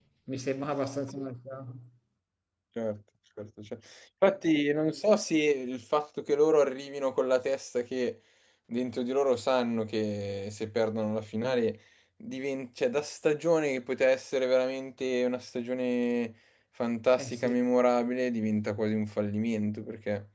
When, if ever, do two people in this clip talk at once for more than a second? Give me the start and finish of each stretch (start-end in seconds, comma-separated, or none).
none